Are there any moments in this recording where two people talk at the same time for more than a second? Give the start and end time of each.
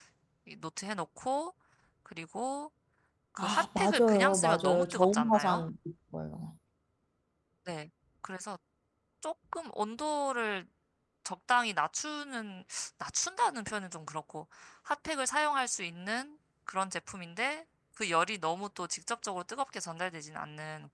3.4-5.6

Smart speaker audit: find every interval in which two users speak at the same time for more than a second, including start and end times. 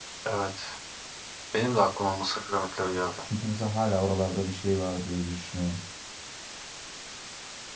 none

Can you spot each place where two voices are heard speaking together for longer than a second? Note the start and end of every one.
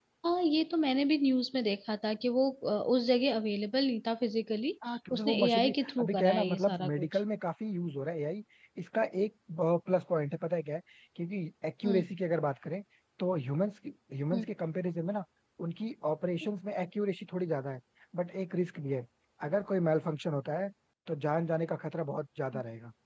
4.9-7.1

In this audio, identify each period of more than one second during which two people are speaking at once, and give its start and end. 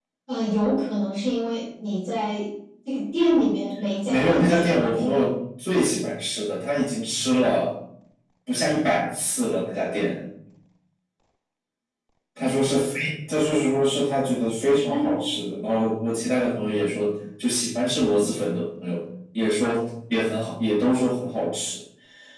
4.1-5.3

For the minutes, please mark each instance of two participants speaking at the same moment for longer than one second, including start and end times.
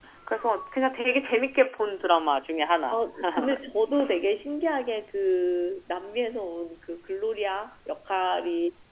none

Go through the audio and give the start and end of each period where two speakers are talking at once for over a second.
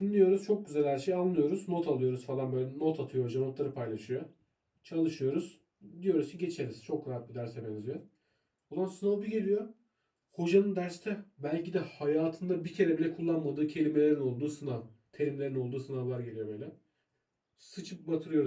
none

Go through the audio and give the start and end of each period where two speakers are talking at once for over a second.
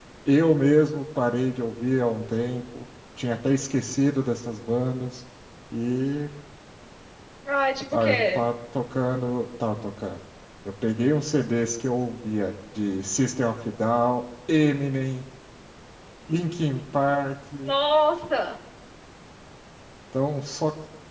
none

